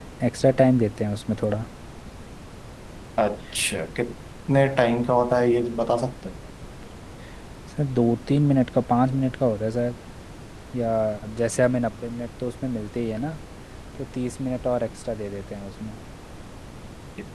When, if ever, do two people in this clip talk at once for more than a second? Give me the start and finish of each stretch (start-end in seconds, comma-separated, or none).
none